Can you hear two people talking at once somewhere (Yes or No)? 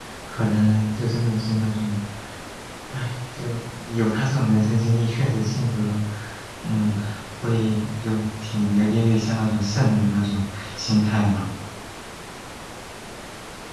No